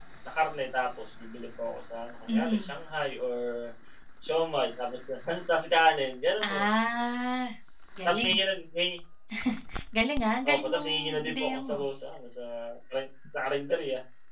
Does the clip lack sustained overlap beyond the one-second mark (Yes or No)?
No